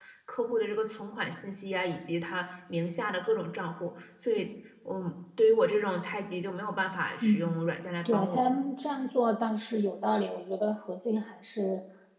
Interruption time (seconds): 7.2 s

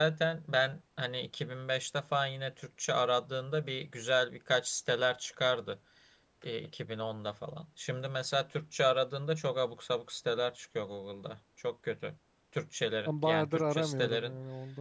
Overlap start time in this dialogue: 13.0 s

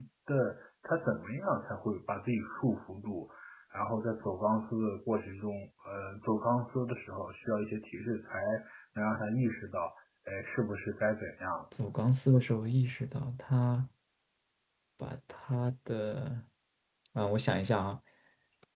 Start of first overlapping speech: none

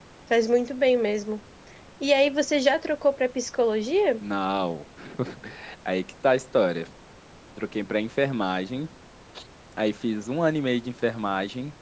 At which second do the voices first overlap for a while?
none

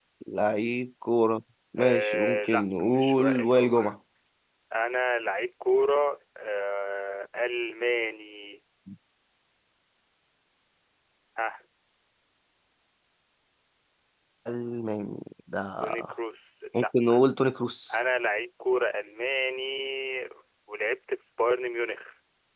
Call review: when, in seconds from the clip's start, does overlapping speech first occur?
1.8 s

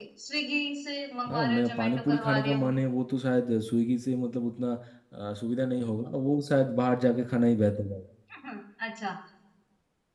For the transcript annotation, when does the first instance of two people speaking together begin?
1.3 s

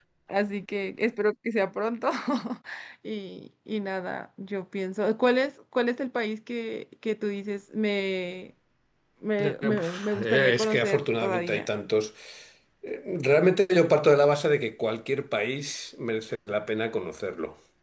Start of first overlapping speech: 9.4 s

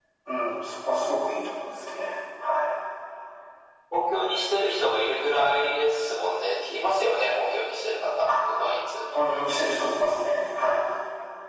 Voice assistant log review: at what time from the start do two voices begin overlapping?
none

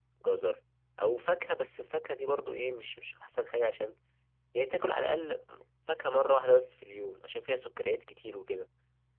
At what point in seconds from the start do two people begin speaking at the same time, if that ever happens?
none

